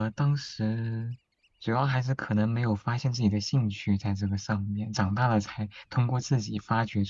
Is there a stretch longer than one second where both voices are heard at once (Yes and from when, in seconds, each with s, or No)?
No